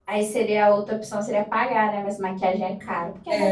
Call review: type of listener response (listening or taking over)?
taking over